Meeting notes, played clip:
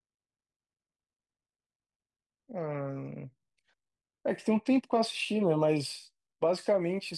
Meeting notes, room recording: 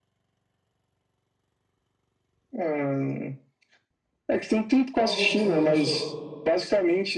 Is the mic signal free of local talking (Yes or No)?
No